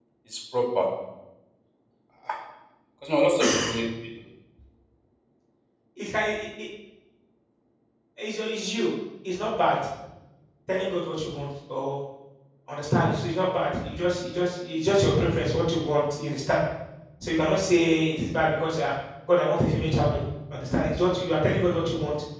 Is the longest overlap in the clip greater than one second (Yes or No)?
No